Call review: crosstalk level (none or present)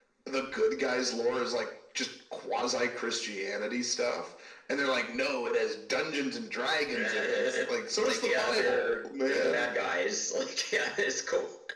present